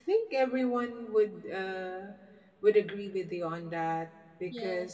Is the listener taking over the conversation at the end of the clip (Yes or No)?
No